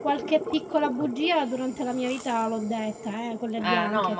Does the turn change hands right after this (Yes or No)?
Yes